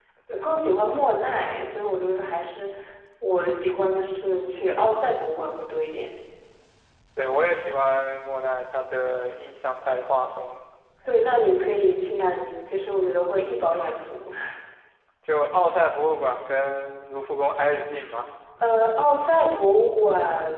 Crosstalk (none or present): none